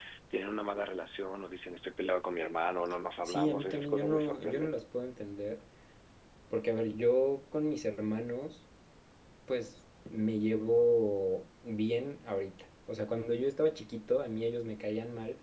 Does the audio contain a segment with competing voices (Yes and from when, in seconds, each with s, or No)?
Yes, from 3.2 s